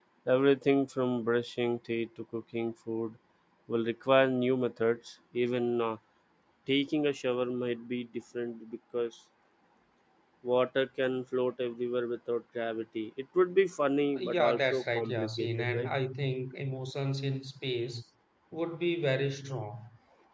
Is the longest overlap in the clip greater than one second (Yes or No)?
Yes